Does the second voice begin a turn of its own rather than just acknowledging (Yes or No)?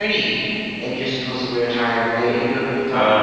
No